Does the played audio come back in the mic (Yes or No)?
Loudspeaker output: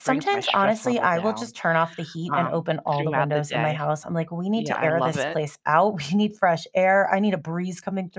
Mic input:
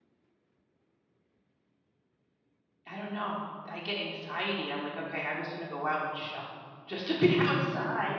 No